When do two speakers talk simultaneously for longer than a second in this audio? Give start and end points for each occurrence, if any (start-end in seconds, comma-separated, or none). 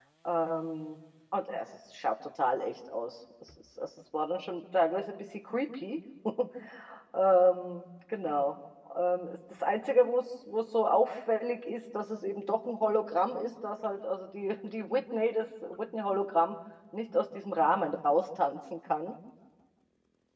none